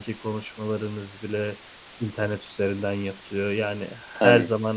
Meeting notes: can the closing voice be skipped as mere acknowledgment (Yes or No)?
Yes